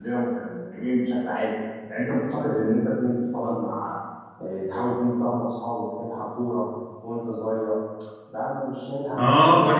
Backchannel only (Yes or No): No